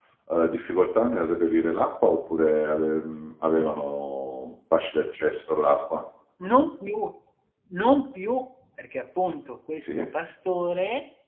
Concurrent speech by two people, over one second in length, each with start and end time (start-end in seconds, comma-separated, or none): none